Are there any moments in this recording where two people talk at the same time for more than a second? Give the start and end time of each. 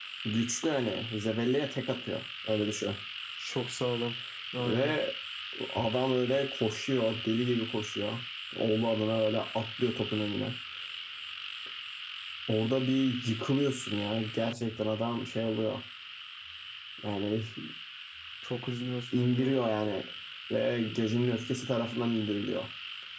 none

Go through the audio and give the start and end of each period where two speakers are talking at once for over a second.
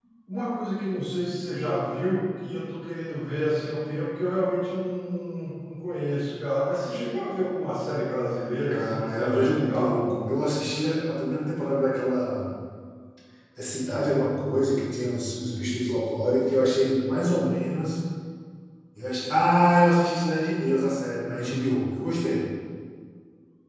8.7-10.1

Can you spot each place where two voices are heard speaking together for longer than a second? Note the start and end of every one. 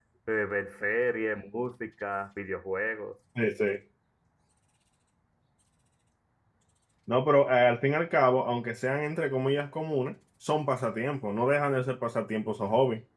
none

